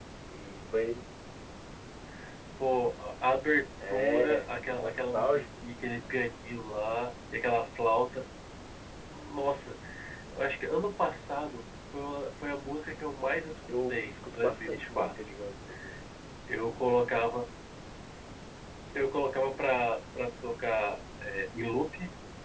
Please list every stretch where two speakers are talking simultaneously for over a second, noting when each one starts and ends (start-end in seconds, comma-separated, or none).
3.9-5.4, 13.7-15.1